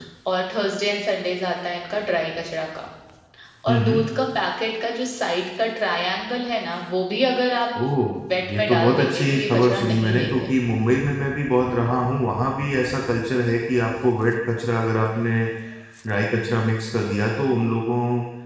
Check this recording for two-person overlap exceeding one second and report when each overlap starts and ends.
8.4-10.5

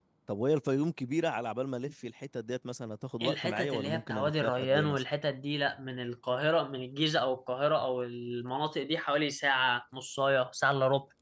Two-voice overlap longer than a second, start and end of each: 3.2-5.0

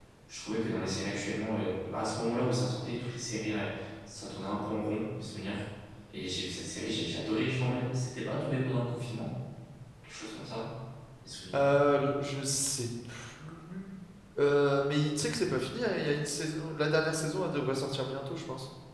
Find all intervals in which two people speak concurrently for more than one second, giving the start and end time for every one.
none

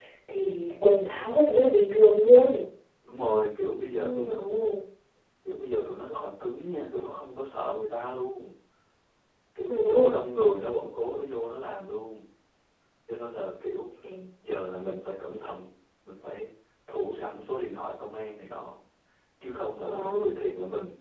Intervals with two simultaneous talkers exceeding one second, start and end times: none

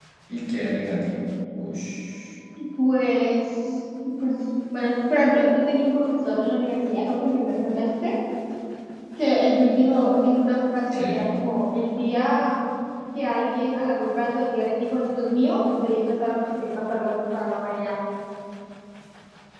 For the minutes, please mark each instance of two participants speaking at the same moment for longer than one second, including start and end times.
none

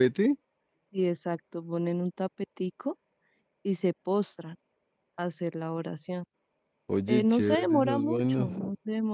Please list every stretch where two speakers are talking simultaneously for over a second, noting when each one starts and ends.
7.1-8.5

